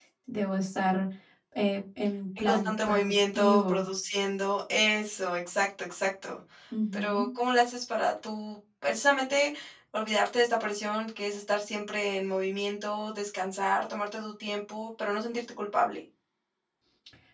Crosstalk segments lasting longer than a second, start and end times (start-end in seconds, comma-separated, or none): 2.4-3.9